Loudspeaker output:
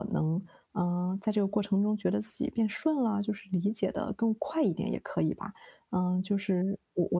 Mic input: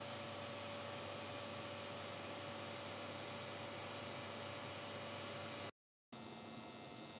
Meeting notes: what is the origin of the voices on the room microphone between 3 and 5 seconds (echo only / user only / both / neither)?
neither